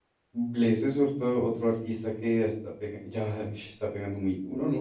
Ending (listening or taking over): taking over